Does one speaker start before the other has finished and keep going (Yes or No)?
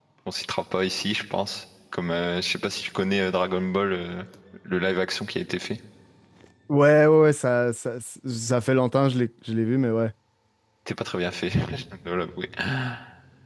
No